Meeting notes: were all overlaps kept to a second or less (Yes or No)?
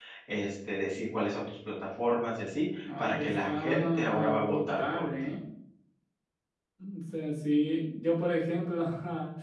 No